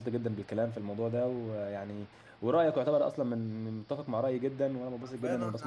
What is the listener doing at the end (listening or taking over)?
taking over